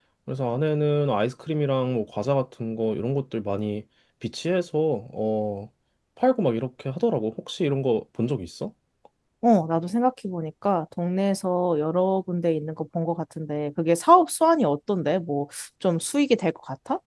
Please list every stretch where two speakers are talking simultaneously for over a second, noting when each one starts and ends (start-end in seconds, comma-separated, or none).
none